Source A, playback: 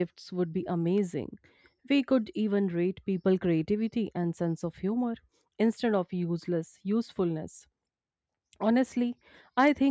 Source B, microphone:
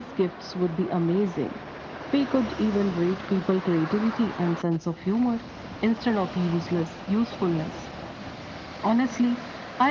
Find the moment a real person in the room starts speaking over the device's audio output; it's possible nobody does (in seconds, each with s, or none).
none